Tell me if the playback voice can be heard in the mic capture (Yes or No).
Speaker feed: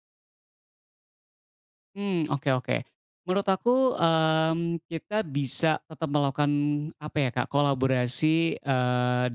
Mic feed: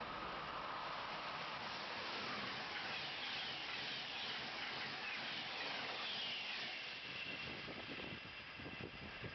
No